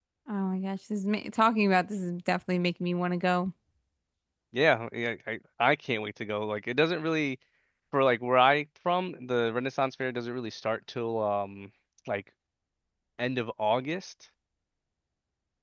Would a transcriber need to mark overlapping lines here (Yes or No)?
No